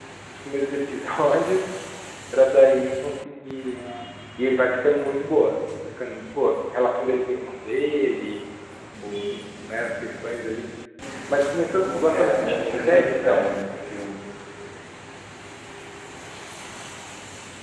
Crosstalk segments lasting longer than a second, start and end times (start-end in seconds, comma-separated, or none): 11.8-13.4